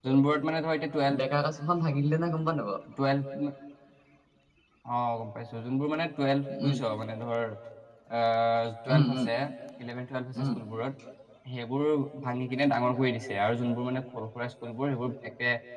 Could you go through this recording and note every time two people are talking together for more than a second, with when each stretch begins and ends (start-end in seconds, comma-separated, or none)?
none